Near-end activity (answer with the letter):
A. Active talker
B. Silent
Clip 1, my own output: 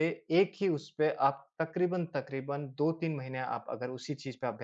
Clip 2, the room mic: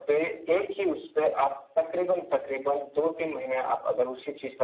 B